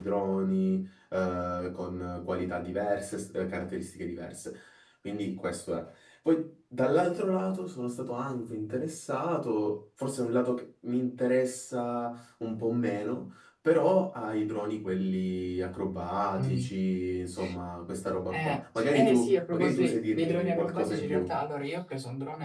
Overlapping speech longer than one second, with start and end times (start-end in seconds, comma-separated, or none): 18.3-21.4